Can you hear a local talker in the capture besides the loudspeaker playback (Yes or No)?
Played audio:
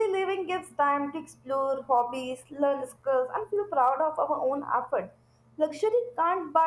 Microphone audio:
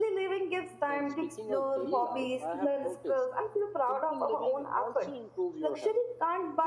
Yes